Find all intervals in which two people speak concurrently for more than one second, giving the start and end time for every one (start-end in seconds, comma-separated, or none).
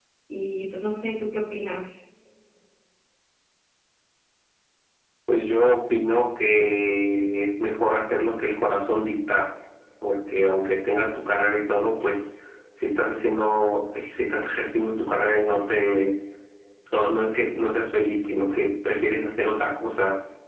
none